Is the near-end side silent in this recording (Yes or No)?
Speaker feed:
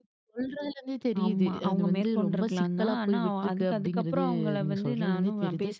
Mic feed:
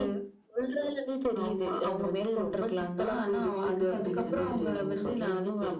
No